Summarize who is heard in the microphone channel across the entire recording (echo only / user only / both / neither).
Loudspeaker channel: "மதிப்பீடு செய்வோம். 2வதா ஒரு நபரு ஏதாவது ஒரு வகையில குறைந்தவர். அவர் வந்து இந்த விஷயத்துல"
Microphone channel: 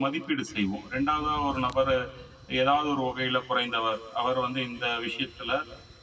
echo only